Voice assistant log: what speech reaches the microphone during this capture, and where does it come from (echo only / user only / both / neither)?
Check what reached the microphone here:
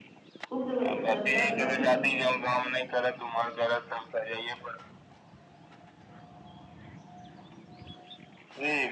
both